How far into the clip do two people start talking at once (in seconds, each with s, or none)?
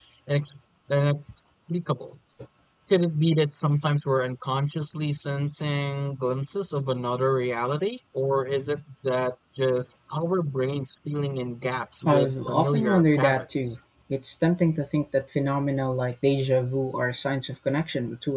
12.1 s